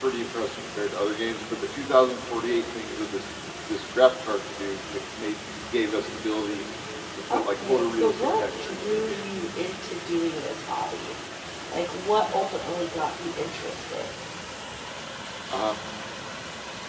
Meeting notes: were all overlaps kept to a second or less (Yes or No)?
No